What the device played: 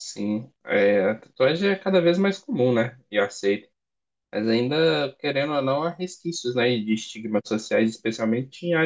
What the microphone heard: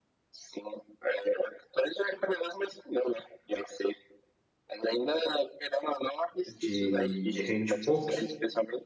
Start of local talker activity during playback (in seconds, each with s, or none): 6.5 s